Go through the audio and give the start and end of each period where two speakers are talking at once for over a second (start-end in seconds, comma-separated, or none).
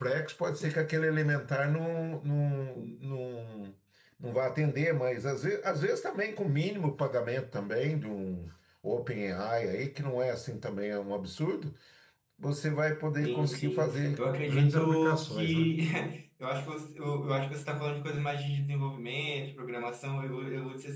13.2-15.7